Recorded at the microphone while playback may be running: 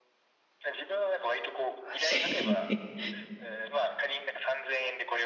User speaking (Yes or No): Yes